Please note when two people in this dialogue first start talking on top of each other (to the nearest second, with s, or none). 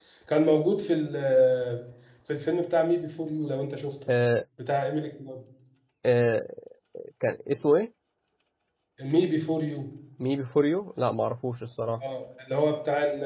none